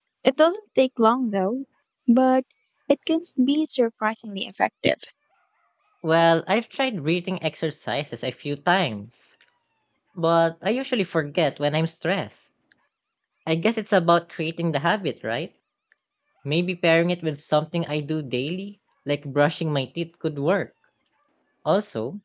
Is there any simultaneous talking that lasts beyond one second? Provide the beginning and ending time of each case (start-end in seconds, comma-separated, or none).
none